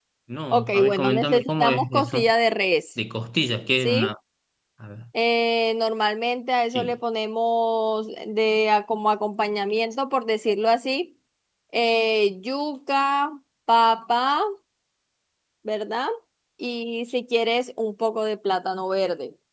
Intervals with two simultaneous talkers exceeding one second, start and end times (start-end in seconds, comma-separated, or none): 0.5-2.2